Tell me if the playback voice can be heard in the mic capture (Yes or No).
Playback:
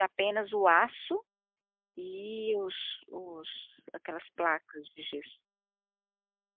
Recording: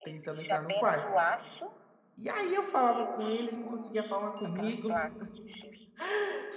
Yes